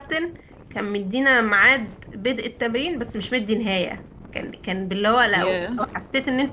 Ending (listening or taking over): listening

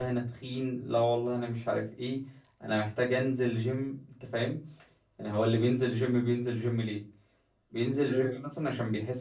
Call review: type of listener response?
listening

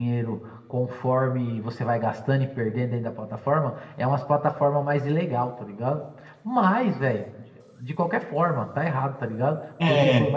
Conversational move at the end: listening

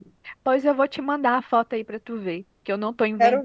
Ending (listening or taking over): listening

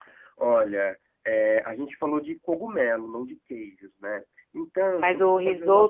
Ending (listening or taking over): taking over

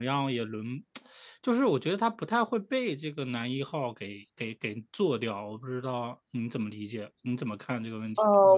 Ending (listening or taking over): taking over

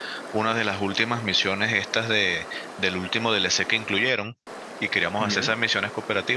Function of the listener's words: listening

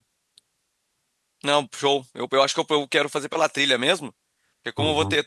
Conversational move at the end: listening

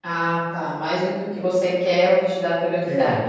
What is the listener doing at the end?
taking over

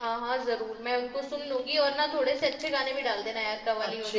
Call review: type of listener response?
taking over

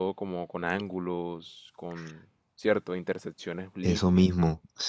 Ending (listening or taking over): taking over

